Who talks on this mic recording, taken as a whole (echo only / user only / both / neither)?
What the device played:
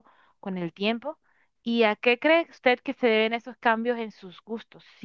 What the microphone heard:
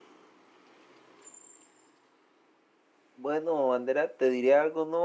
user only